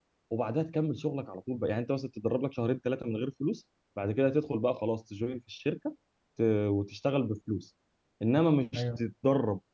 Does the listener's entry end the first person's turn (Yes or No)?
No